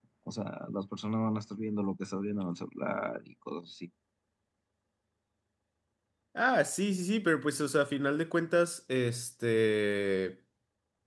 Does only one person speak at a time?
Yes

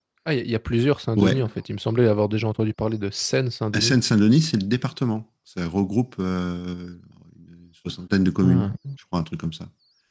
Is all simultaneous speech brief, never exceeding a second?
Yes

